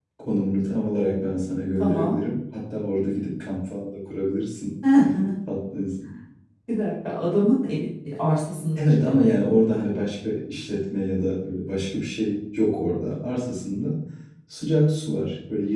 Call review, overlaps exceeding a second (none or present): none